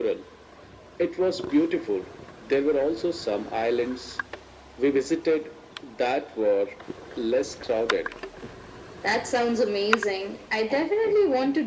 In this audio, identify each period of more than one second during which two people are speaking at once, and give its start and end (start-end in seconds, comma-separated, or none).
none